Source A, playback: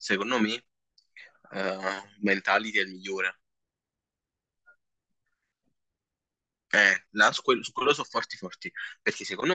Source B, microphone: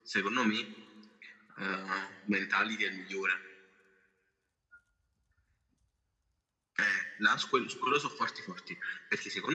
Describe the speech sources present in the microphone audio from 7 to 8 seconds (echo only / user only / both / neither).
echo only